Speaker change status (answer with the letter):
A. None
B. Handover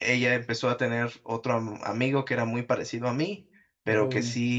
A